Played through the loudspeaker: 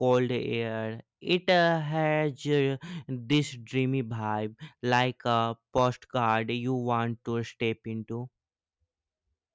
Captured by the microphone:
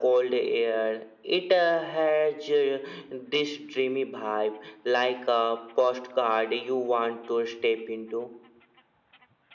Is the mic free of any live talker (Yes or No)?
Yes